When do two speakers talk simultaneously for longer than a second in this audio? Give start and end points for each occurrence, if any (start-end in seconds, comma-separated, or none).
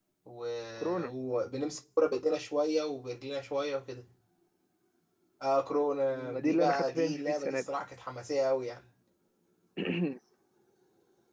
6.2-7.6